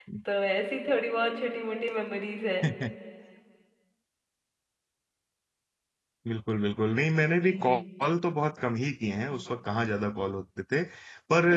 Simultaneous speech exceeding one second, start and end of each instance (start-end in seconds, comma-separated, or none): none